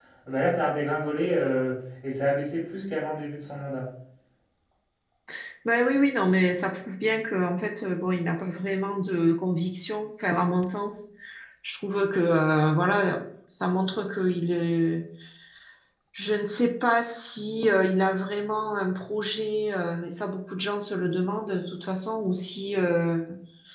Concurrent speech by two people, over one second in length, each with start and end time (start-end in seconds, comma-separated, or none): none